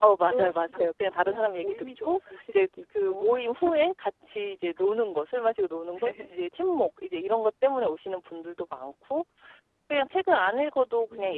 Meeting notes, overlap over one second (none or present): present